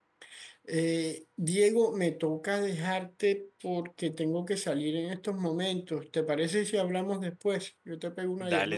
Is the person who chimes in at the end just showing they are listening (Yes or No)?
No